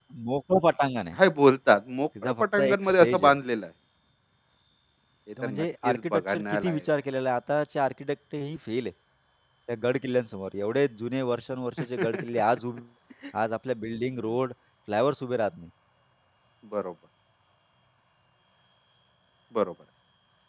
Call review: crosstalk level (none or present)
present